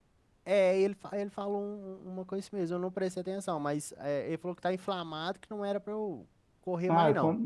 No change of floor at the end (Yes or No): No